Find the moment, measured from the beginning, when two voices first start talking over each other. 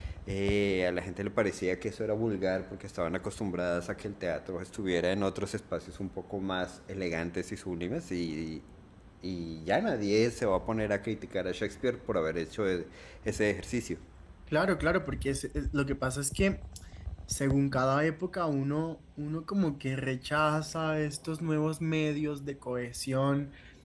none

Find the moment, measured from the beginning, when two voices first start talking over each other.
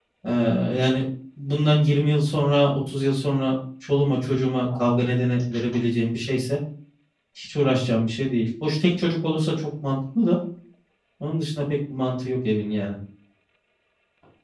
none

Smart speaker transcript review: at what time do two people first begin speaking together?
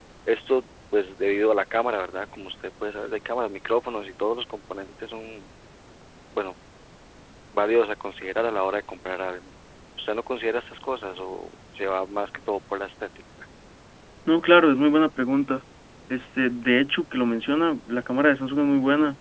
none

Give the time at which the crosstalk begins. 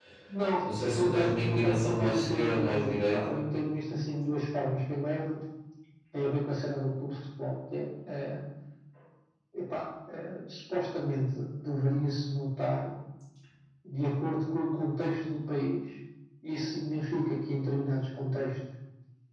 0.9 s

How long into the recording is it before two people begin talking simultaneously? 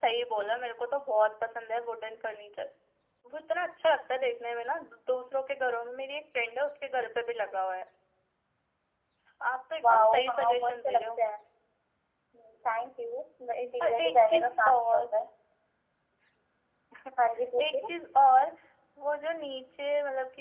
9.8 s

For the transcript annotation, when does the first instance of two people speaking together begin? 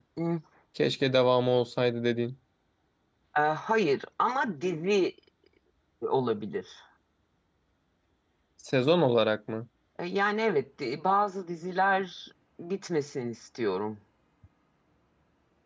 none

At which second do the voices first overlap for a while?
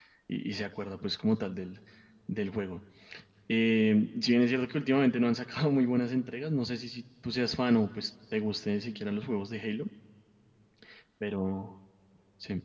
none

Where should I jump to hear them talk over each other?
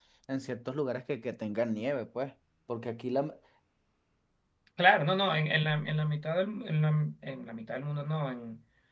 none

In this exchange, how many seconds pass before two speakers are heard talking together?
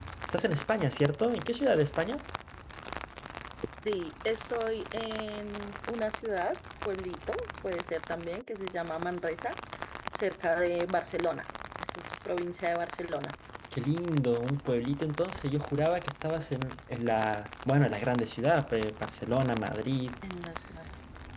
none

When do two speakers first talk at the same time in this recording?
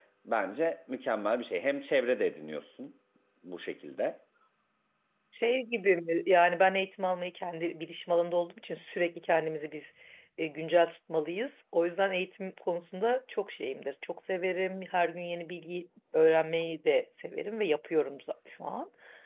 none

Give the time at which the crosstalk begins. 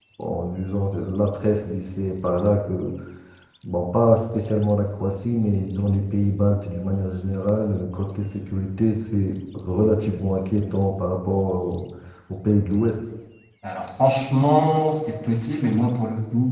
none

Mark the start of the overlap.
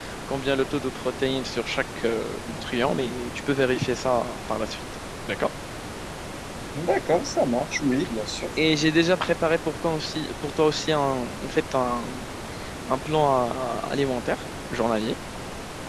none

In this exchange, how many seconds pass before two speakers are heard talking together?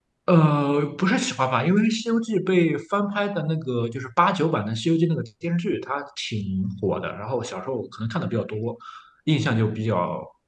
none

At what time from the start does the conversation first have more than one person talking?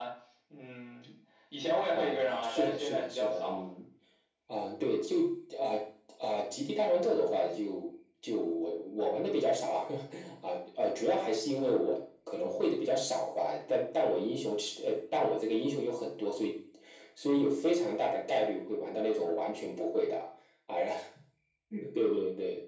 1.9 s

